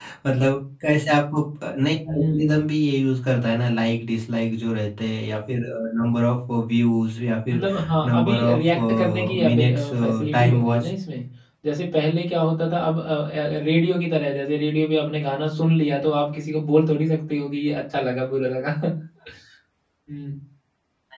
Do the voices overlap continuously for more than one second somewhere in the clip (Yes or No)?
Yes